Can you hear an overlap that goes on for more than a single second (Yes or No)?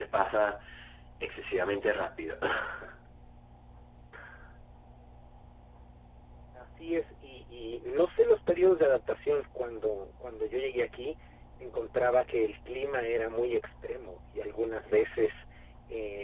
No